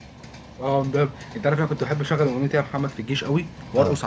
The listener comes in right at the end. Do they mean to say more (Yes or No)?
No